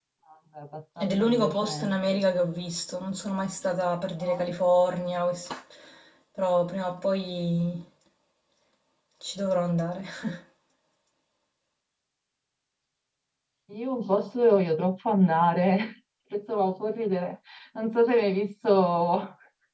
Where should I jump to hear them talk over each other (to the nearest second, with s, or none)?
1 s